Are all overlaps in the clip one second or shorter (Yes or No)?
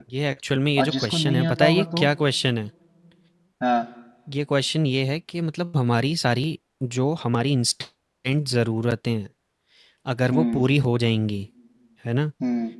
No